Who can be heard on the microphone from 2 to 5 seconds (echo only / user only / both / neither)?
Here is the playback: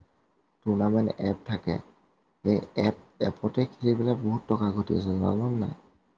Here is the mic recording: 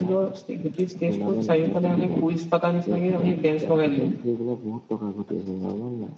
both